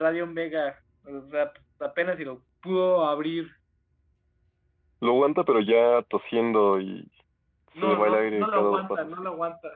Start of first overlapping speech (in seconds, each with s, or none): 7.8 s